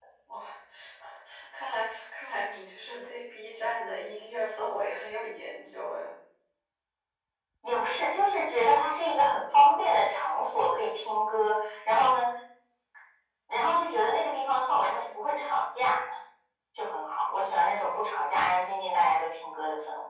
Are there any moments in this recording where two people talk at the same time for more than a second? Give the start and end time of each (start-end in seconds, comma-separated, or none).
none